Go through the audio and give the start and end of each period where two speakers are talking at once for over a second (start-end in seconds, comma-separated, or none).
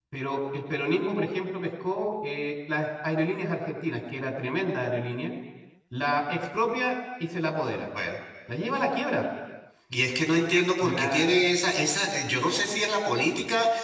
none